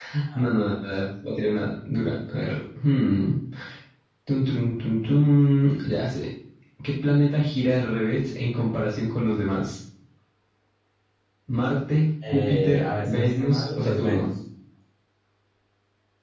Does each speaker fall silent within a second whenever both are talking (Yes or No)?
No